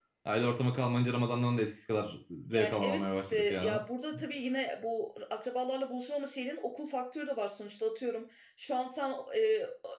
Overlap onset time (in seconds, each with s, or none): 2.5 s